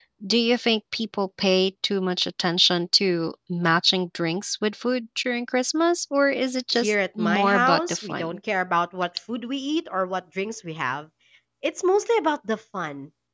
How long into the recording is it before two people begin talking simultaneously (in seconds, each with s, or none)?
6.7 s